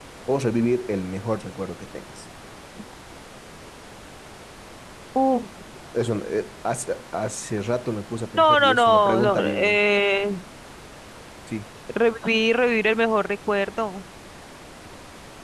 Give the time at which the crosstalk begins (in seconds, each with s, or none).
8.4 s